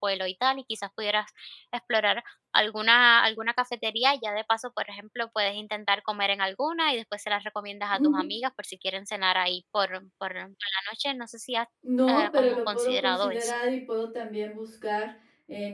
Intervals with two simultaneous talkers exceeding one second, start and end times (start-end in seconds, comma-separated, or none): 12.1-13.5